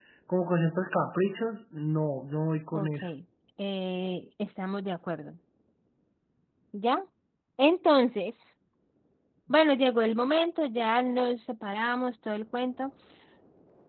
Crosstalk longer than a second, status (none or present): none